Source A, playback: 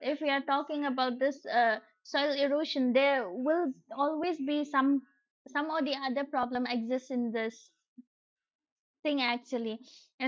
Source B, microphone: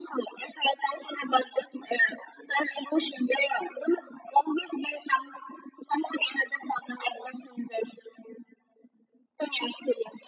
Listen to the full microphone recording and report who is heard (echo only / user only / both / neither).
echo only